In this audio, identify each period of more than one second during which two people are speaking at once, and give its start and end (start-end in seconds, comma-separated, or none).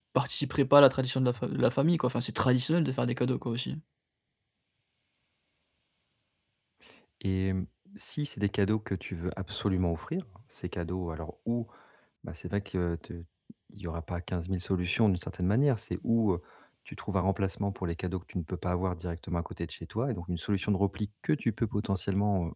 none